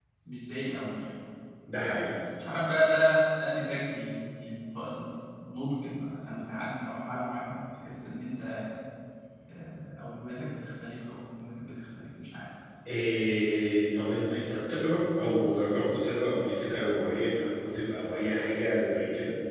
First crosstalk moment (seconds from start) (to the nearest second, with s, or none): none